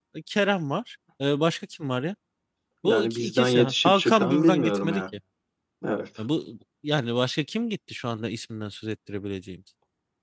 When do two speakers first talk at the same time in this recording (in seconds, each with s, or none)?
2.8 s